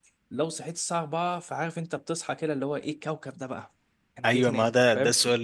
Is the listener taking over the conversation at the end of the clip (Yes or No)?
Yes